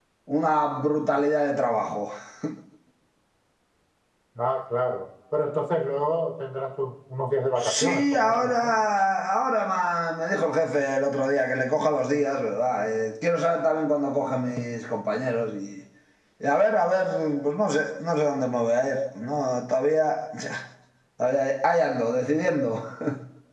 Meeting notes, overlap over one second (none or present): present